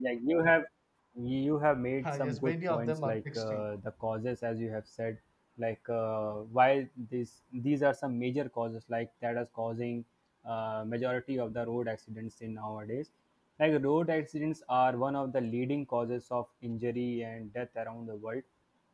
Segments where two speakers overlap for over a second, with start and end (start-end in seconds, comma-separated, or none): 2.0-3.6